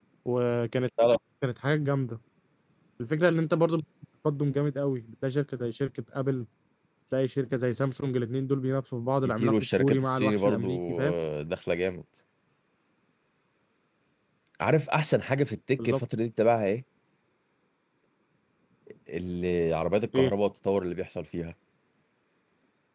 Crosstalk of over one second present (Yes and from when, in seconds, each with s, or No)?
Yes, from 9.2 s